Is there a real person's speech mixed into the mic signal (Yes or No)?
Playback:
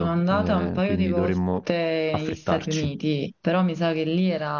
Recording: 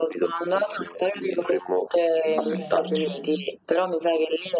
Yes